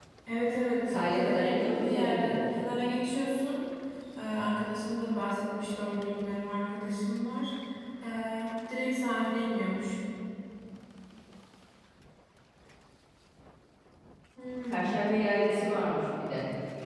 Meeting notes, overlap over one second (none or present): present